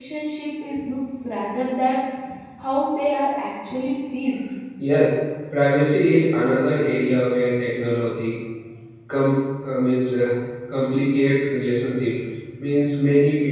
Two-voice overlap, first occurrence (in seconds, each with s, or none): none